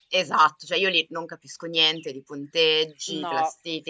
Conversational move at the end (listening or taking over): listening